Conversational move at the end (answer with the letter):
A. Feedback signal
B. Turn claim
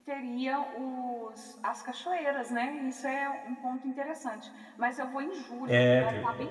A